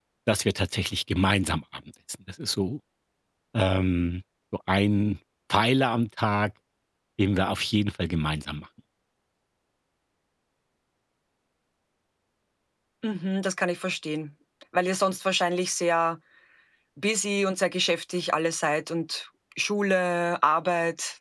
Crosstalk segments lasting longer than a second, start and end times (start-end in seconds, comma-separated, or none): none